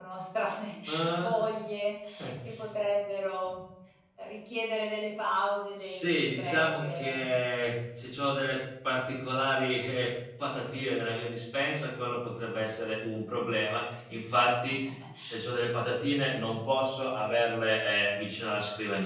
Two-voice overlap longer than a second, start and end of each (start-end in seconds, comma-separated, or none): 5.8-7.2